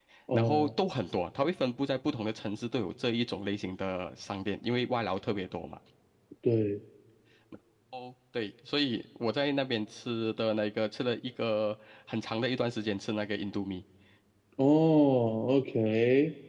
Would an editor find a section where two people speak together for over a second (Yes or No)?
No